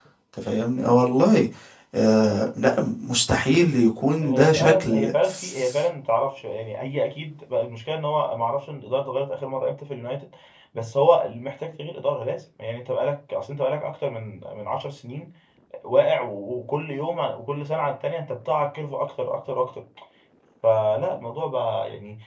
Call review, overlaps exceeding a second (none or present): present